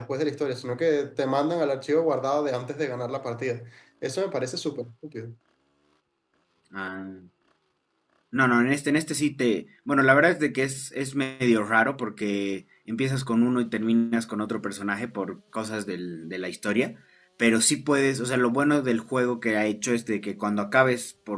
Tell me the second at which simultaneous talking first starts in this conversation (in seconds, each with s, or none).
none